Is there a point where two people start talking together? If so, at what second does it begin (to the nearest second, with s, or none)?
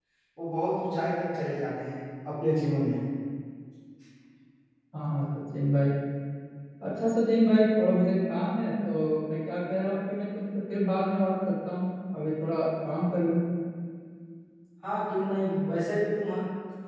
none